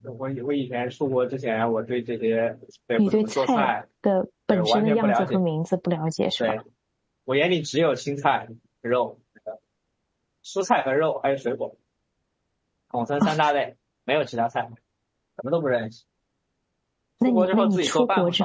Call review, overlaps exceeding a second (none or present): present